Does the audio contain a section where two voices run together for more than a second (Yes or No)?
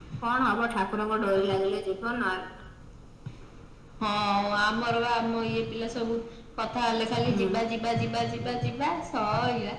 No